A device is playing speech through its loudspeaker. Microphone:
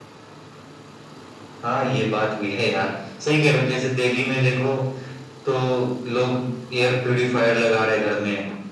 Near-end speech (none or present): none